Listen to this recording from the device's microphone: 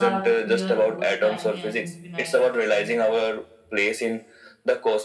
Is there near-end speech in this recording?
Yes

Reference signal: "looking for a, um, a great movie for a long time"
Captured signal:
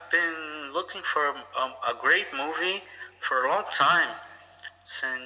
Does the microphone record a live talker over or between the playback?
No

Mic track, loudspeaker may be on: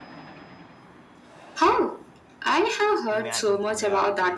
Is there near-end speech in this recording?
Yes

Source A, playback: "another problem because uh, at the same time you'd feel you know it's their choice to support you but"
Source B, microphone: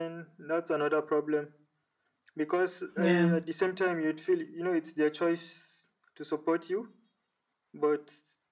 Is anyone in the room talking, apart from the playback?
Yes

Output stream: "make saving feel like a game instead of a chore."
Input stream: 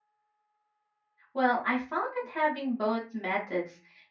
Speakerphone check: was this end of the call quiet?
No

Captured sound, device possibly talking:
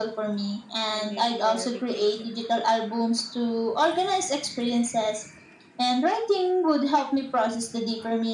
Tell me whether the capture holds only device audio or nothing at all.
No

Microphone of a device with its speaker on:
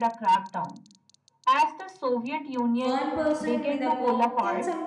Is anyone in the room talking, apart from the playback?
Yes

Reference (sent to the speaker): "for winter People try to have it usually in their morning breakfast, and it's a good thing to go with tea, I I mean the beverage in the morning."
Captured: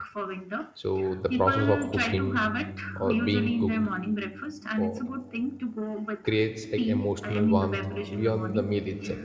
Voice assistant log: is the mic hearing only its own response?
No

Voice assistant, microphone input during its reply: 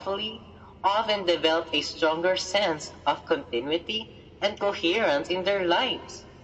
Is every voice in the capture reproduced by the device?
Yes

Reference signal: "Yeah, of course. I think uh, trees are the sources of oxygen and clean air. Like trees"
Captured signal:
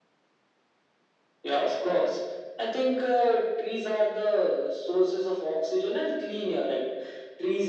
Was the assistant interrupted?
No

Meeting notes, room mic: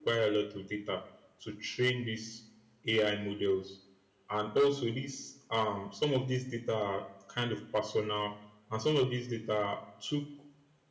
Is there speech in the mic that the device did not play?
Yes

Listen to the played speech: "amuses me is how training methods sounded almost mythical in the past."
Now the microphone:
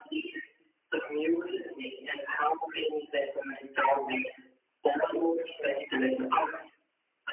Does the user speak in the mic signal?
No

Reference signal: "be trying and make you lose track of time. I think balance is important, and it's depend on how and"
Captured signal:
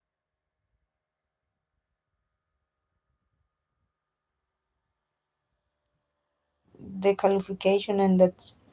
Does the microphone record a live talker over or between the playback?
Yes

